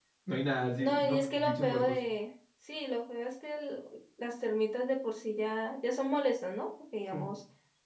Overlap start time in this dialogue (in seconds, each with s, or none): 0.8 s